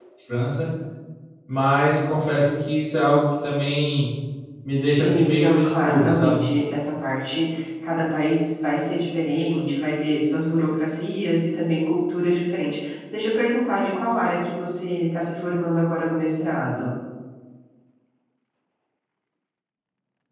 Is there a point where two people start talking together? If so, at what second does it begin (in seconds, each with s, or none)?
4.9 s